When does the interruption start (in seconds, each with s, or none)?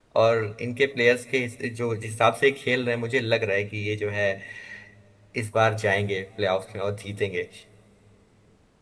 none